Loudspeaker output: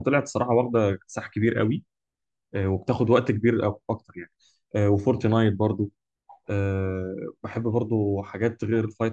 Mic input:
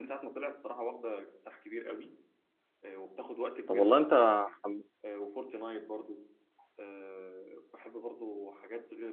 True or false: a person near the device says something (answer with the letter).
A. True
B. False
A